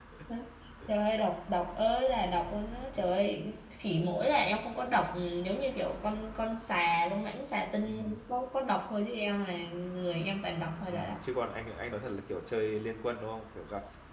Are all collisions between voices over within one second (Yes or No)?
Yes